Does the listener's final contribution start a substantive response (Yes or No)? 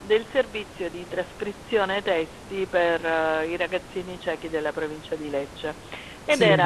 No